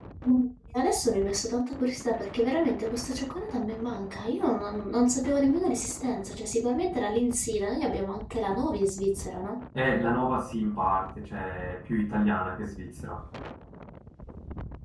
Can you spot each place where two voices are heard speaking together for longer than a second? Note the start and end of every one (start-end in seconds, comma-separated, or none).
none